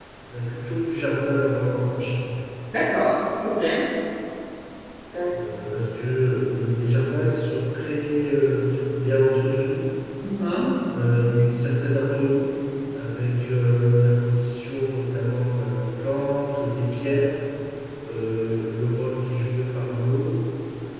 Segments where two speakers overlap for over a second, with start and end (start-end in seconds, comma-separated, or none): none